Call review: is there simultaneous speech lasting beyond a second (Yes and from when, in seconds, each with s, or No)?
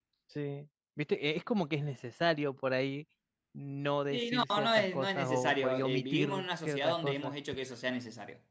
Yes, from 4.1 s